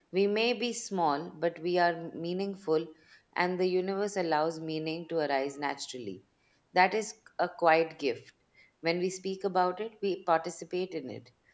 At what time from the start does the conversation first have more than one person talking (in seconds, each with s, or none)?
none